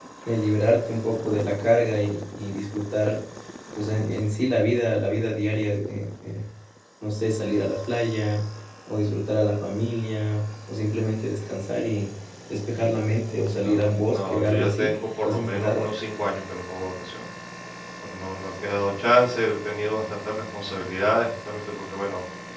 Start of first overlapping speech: 13.2 s

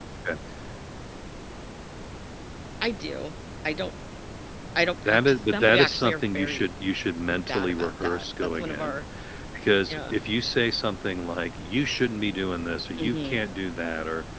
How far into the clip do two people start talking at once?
5.1 s

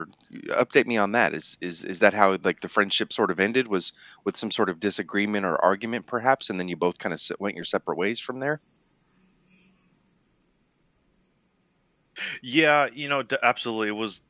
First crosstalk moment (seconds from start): none

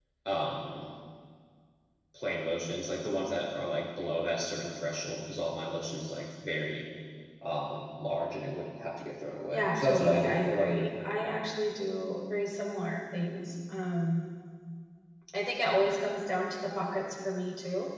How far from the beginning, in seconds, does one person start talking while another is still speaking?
9.5 s

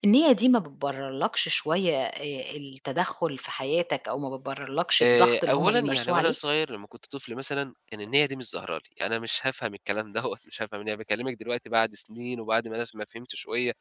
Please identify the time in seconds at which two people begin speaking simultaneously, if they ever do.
5.0 s

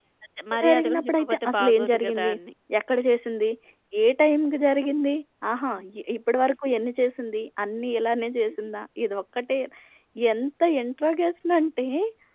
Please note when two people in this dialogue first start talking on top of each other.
0.5 s

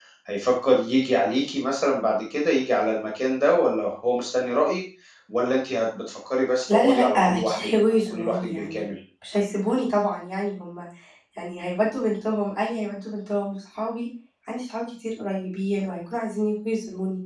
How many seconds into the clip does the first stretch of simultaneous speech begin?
6.6 s

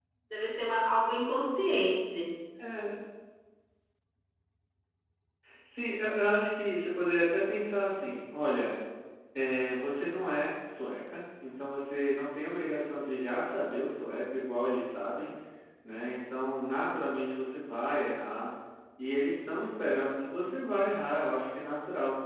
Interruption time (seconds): none

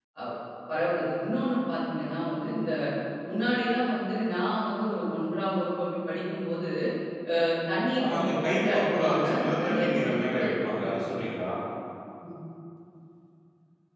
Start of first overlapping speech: 8.0 s

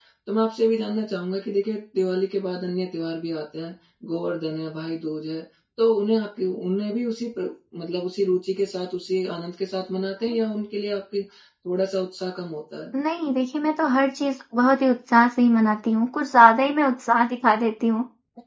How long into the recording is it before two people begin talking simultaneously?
none

